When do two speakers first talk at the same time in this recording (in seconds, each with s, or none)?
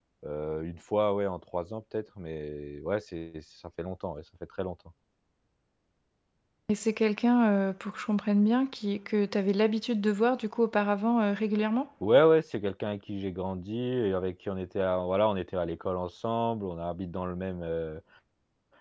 none